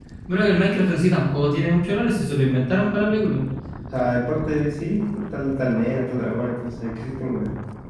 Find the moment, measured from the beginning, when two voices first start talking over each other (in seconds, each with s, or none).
none